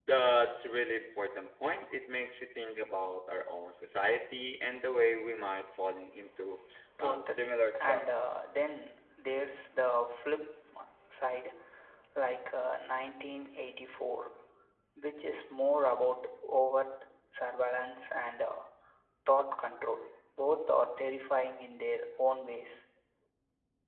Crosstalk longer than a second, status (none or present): present